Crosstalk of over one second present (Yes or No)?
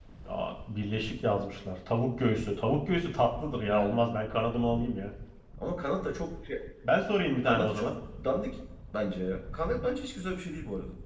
No